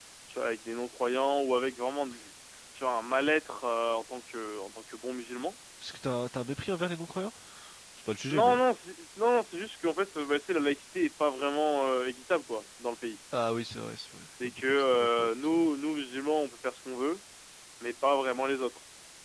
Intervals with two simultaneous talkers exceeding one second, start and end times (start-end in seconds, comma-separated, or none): 14.4-15.7